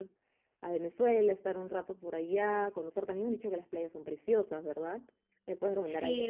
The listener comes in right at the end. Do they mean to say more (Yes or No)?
Yes